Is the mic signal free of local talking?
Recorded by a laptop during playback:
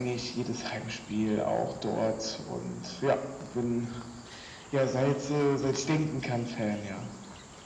Yes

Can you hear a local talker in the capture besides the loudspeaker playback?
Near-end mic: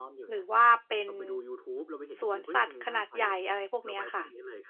Yes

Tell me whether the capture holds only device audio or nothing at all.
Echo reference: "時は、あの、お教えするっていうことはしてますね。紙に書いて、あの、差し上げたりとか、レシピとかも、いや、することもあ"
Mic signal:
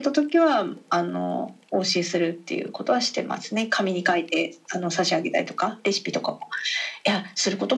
Yes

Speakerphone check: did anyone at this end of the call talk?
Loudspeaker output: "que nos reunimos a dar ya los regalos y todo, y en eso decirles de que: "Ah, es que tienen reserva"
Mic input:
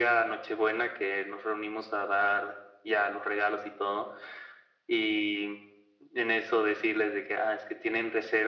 No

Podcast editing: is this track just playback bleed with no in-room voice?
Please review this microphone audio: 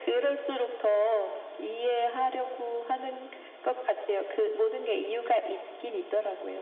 Yes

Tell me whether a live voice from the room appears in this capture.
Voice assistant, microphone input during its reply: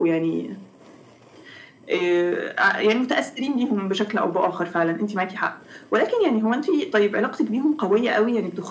No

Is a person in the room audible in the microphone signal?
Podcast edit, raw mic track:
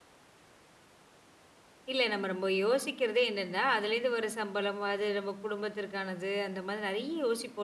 Yes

